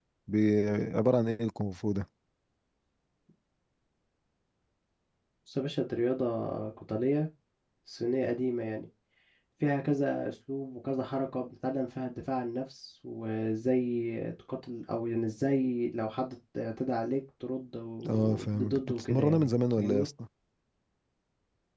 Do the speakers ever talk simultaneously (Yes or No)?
Yes